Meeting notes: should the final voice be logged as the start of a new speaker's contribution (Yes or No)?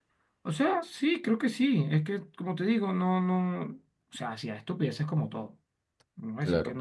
No